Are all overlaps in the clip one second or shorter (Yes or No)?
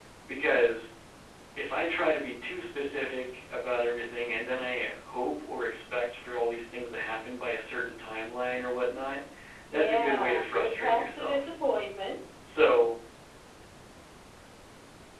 No